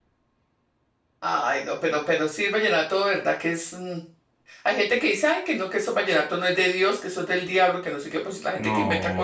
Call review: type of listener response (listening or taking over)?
listening